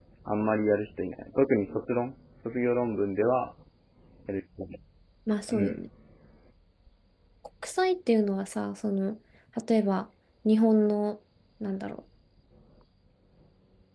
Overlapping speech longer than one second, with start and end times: none

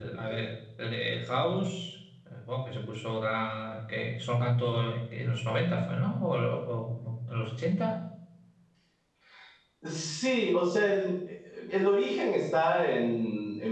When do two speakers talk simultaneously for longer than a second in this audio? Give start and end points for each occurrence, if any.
none

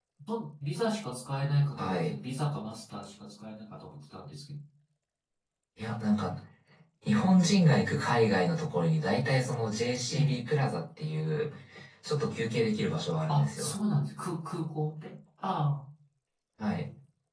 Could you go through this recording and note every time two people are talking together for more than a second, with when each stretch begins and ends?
none

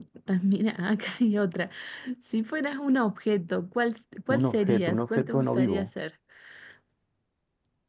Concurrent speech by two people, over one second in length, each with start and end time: 4.3-5.9

